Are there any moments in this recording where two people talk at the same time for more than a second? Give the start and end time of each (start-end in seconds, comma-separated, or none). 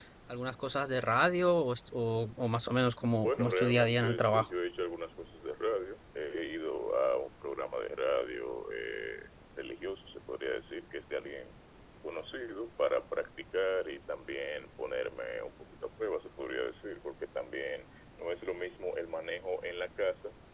3.2-4.5